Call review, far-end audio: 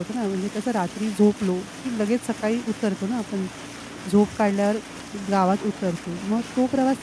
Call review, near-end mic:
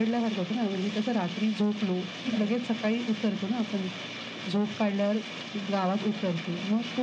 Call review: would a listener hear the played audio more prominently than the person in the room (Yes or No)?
Yes